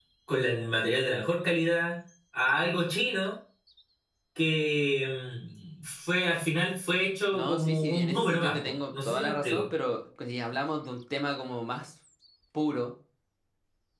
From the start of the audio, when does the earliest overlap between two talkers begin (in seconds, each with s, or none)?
7.3 s